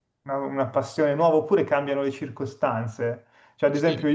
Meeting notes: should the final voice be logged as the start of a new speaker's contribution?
No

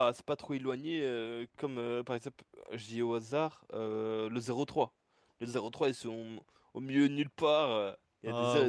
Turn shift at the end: No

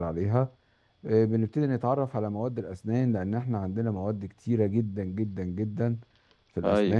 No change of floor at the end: Yes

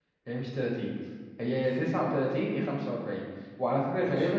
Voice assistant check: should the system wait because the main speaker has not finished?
Yes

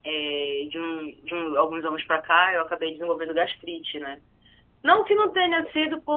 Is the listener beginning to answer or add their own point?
No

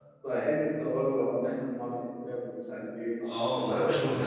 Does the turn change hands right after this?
Yes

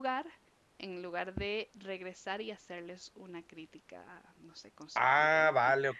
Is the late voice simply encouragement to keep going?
No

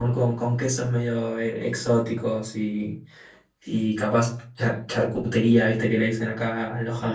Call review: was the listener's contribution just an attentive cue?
Yes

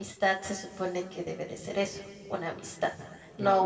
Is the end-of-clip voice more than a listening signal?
No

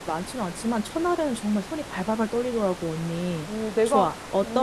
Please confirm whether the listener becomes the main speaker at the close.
Yes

